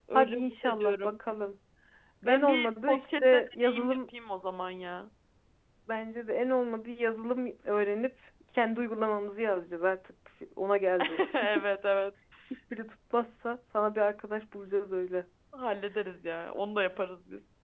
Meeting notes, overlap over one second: present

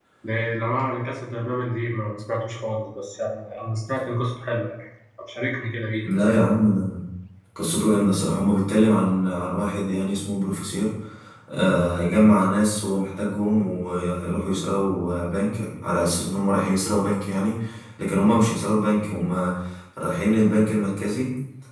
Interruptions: none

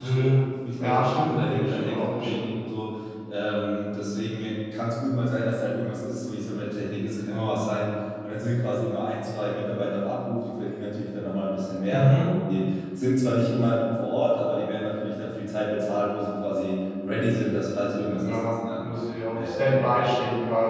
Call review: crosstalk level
present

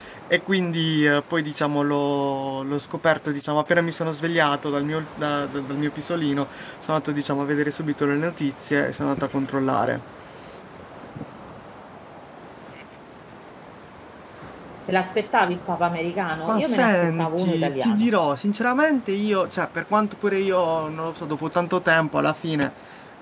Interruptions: present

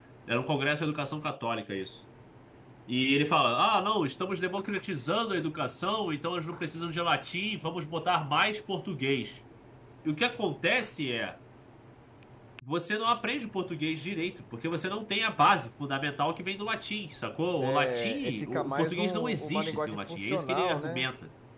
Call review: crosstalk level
present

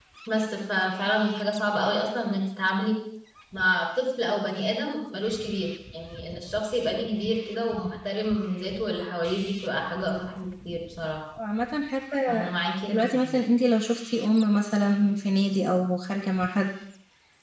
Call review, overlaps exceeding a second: none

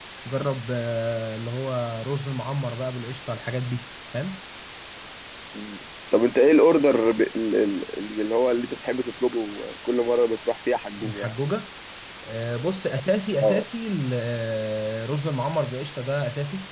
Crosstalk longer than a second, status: none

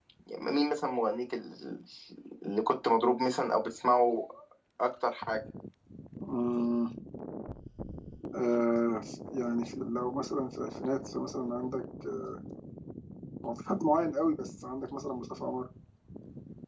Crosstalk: none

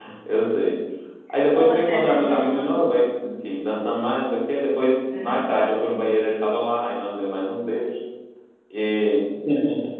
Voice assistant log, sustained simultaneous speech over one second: present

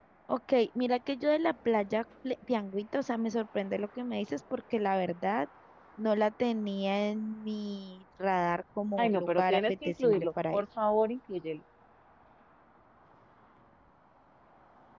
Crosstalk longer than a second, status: present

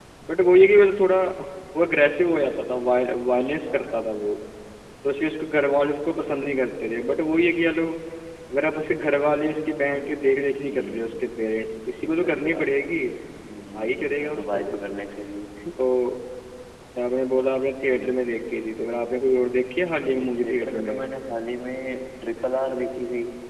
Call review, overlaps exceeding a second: present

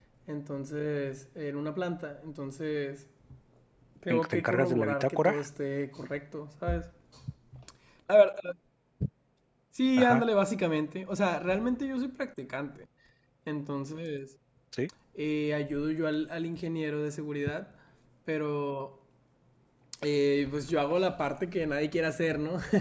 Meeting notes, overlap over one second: present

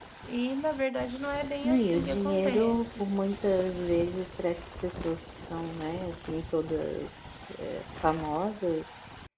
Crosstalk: present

